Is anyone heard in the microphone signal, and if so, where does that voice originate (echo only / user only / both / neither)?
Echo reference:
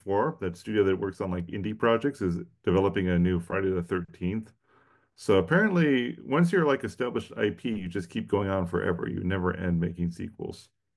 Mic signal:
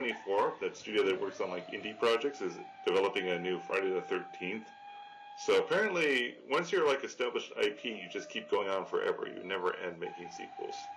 echo only